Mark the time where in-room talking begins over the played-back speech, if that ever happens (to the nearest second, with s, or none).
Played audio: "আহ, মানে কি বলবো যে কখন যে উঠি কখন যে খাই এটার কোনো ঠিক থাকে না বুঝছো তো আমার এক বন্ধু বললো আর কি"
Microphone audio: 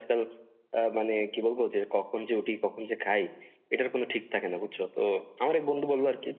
none